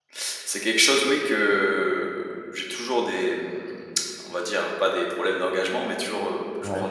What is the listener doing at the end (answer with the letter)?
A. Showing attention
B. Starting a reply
A